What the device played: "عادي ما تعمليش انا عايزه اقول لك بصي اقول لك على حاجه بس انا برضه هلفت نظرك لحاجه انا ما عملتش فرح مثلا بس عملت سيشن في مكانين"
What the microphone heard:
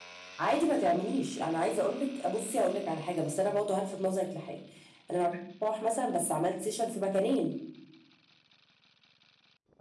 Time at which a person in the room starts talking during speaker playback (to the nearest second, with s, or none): none